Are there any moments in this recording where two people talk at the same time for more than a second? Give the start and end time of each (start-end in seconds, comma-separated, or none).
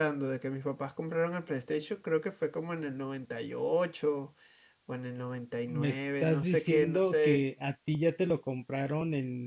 5.7-7.4